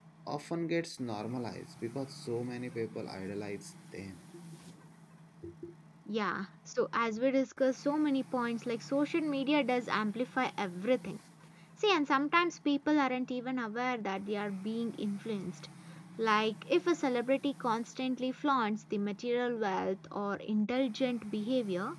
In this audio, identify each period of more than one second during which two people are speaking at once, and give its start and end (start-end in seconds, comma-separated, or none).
none